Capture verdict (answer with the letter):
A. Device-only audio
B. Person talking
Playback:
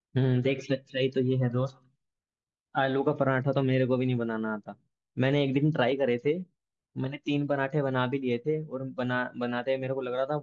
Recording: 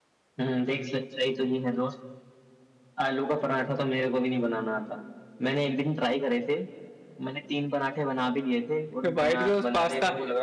B